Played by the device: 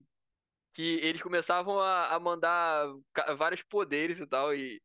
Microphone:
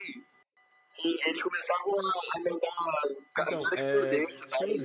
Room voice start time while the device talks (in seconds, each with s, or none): 3.3 s